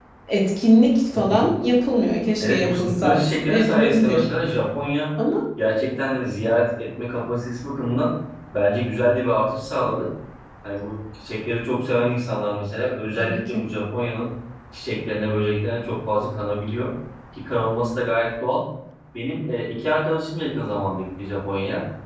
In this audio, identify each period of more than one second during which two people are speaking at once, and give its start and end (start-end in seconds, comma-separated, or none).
2.4-4.2